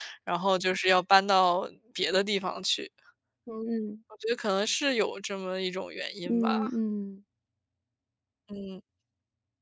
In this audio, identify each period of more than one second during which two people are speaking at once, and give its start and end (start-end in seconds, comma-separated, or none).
none